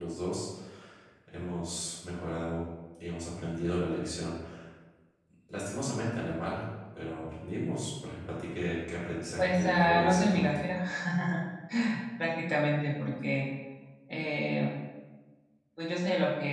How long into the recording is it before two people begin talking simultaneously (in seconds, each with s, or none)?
9.4 s